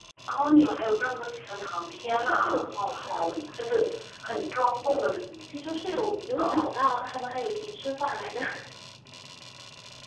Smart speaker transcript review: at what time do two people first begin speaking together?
2.1 s

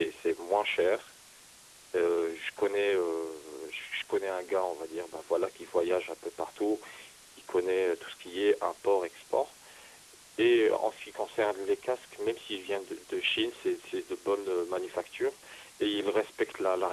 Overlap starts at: none

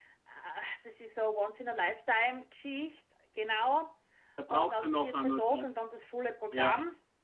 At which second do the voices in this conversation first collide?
4.5 s

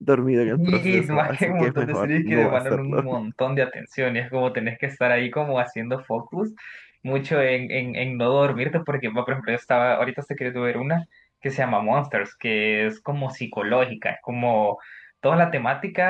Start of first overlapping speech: 0.5 s

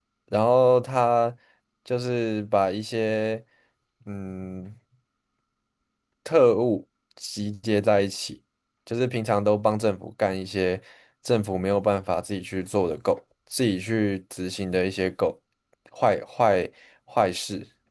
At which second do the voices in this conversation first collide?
none

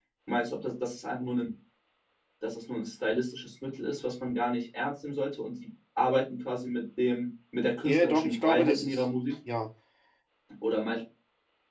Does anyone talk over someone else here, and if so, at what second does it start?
7.8 s

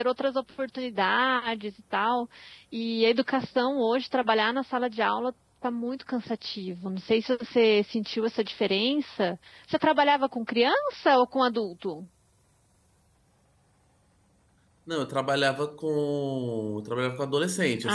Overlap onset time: none

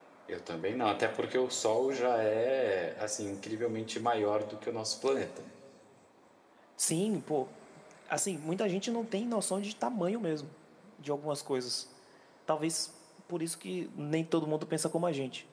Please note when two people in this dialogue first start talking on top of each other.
none

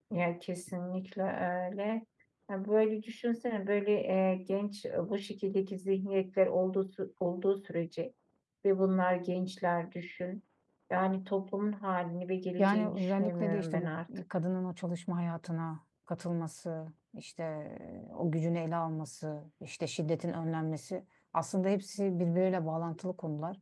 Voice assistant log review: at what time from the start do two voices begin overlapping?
12.6 s

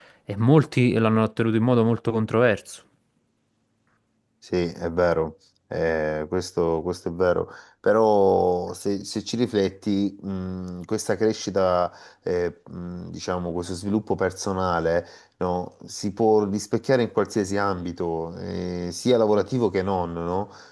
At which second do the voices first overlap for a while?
none

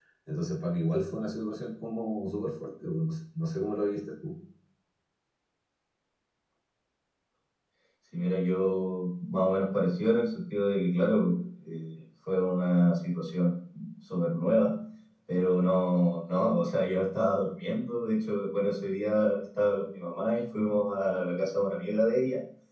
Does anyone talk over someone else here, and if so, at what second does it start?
none

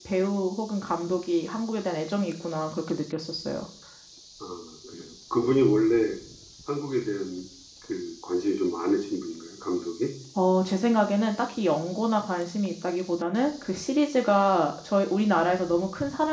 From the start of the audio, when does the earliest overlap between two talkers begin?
none

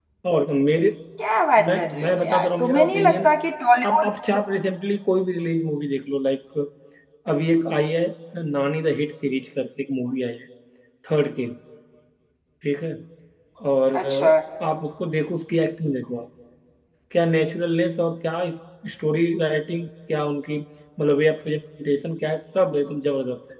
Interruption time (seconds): 1.7 s

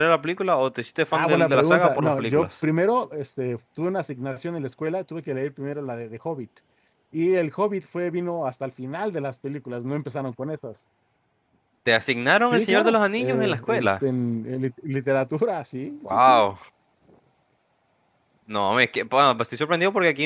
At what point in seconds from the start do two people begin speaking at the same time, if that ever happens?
1.1 s

